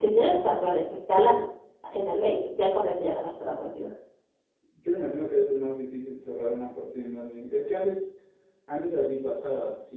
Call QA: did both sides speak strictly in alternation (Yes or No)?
Yes